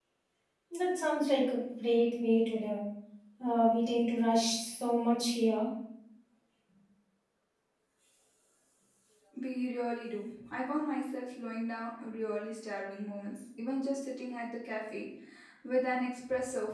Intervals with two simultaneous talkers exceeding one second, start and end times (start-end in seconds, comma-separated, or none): none